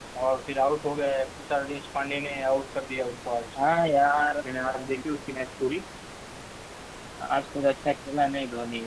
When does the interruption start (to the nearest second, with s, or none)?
none